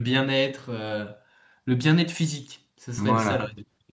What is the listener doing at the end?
taking over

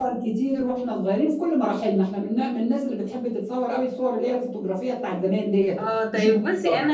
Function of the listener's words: taking over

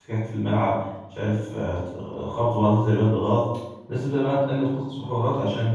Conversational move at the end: listening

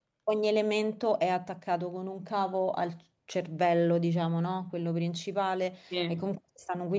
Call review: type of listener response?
listening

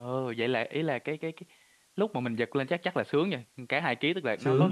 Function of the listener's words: listening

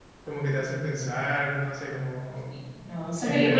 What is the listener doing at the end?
taking over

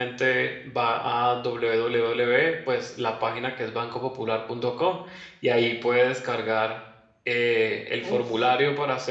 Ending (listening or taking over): listening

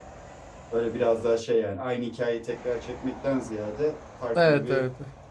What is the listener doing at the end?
listening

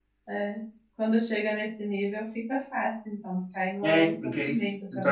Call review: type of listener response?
taking over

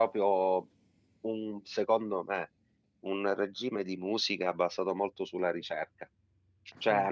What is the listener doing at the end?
listening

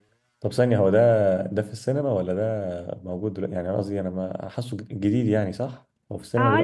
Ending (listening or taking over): taking over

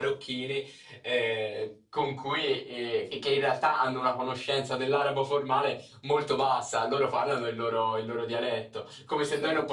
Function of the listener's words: listening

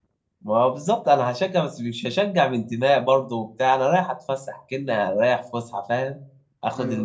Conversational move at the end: listening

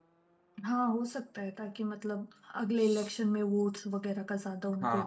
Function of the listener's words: taking over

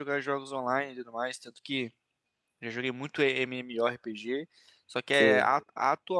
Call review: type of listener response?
listening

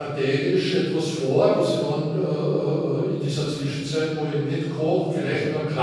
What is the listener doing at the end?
listening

